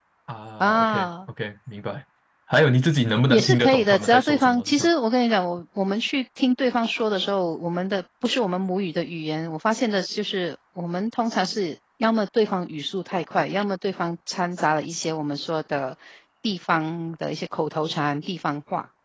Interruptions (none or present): present